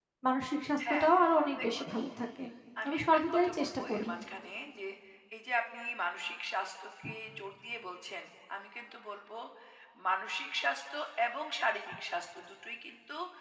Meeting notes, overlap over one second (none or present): present